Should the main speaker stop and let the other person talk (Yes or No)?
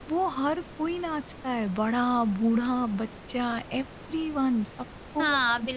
Yes